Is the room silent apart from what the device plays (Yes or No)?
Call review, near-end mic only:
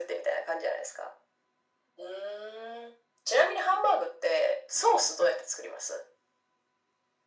Yes